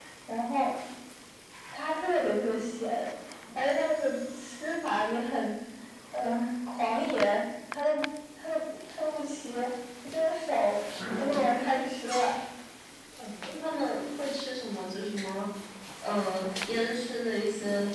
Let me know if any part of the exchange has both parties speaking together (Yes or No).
No